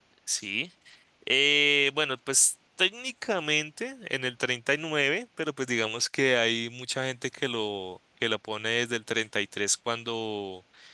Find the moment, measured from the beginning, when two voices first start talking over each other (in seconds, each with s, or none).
none